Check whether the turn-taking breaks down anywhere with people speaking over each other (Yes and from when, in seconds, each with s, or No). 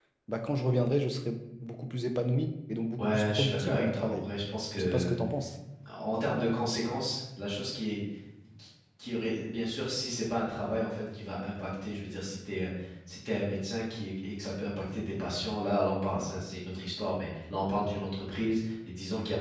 Yes, from 3.0 s